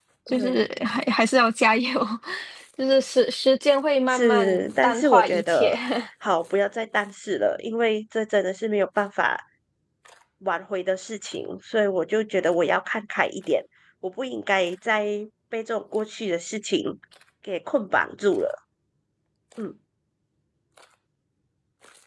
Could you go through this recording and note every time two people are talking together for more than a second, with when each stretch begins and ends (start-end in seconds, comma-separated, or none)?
4.1-5.8